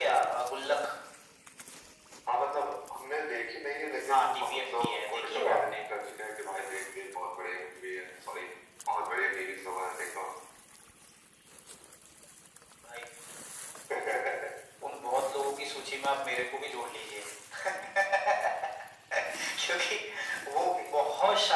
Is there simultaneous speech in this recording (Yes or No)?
Yes